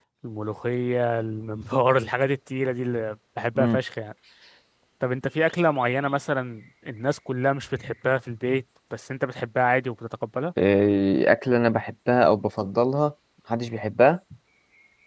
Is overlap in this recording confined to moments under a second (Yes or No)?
Yes